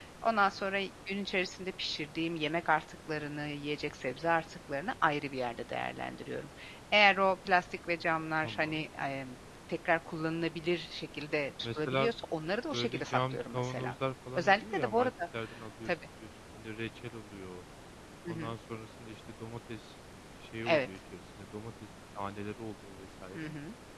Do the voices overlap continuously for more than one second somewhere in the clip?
Yes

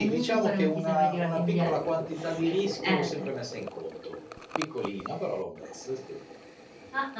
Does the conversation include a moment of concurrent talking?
Yes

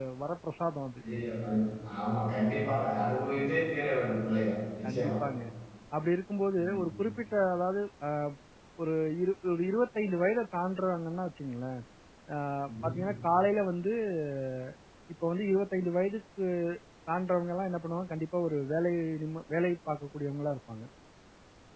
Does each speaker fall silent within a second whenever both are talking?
Yes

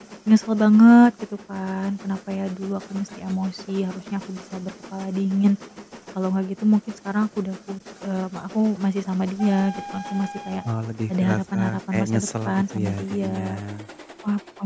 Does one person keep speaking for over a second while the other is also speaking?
Yes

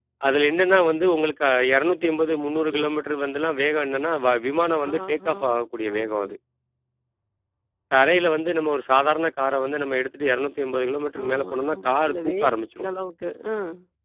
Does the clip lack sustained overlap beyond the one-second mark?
No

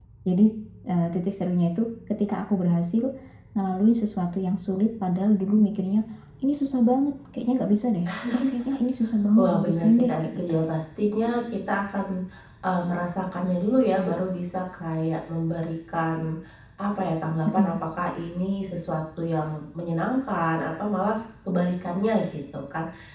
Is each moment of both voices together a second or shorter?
No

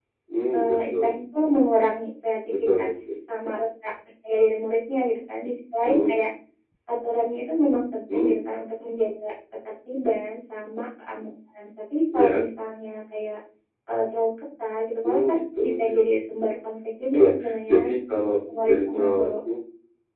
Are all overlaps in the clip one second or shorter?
No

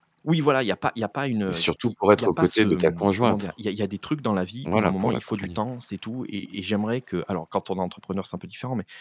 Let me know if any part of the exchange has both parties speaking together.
Yes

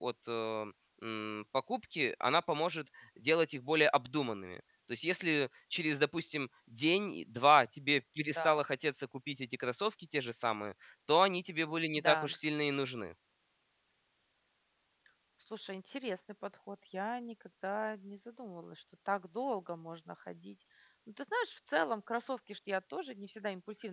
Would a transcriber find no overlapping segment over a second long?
Yes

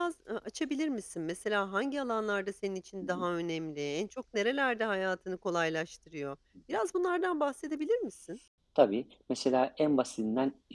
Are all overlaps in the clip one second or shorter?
Yes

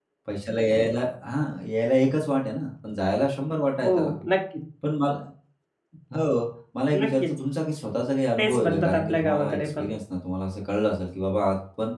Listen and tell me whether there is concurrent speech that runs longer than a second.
Yes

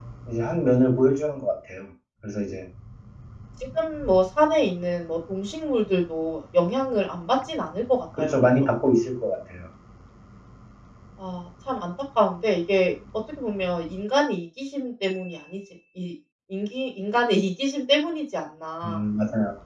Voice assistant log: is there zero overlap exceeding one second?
Yes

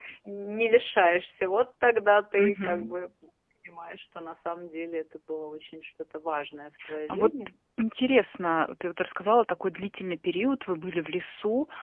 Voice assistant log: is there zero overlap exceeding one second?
Yes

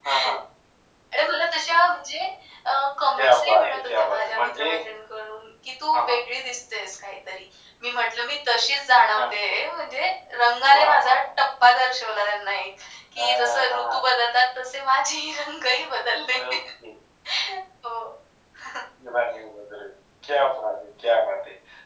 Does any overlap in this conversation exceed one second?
Yes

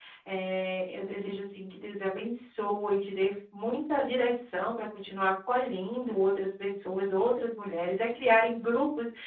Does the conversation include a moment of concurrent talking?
No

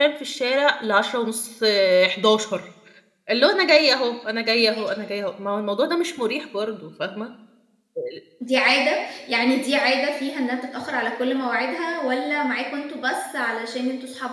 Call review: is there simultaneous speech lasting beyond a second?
No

